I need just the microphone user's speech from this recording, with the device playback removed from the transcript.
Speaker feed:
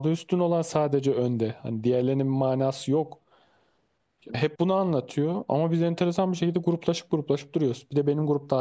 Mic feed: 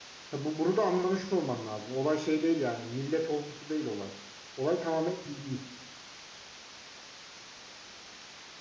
Ya bu, bunu da anlamış olman lazım. Olay şey değil yani. Millet olgusu değil olay. Olay tamamen dini.

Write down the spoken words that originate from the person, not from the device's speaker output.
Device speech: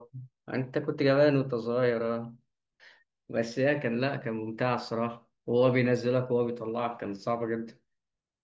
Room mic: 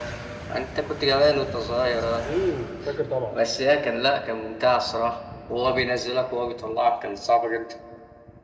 امم فاكر طبعا

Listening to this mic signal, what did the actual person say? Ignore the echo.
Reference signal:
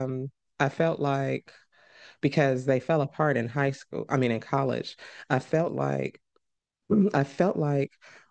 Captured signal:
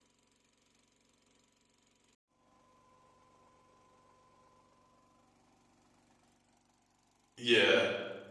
yeah

